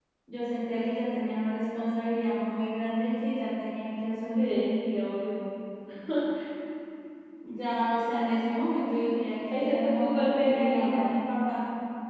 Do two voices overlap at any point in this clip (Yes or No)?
Yes